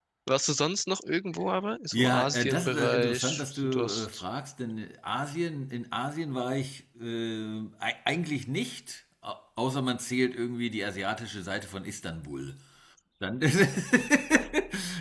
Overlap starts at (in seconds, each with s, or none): 1.9 s